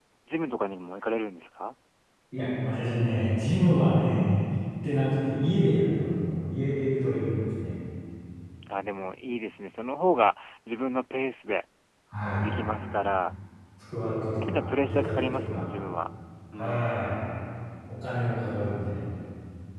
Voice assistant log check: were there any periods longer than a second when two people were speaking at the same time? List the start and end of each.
14.4-15.7

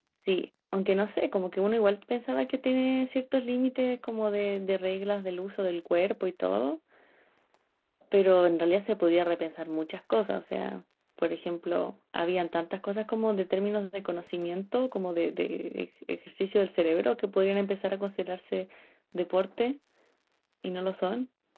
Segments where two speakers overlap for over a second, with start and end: none

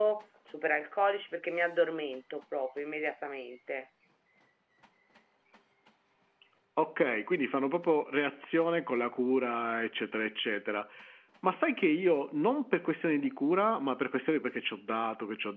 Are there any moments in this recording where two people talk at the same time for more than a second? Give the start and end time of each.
none

